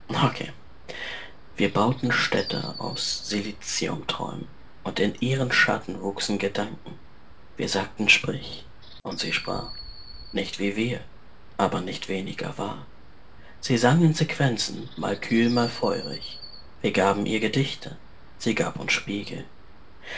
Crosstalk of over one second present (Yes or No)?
No